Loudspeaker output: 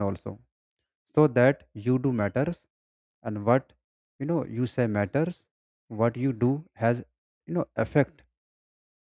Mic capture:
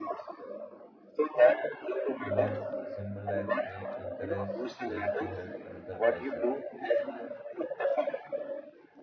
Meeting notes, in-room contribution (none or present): present